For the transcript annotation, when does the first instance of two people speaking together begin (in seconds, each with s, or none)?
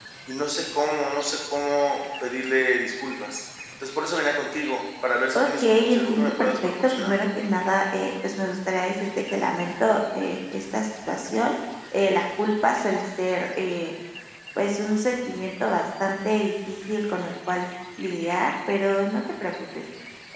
5.4 s